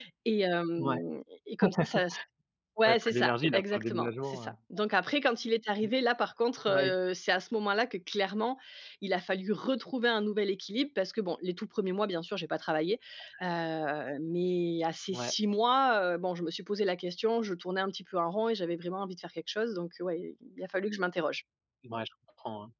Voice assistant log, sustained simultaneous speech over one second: present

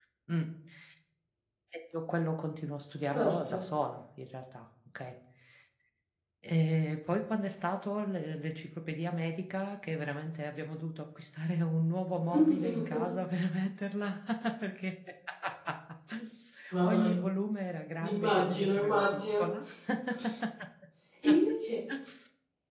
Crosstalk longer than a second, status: present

